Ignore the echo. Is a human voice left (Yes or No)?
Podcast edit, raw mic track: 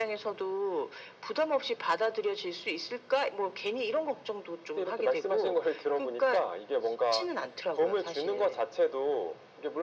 No